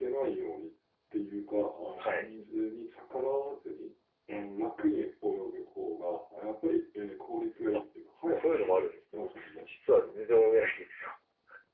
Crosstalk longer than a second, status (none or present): present